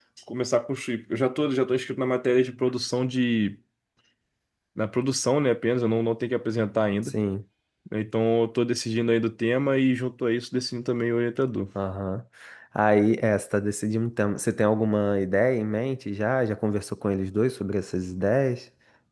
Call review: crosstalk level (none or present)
none